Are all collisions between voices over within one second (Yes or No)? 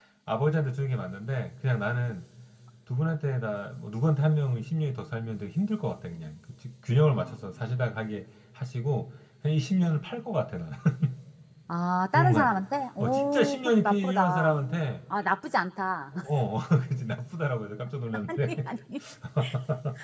No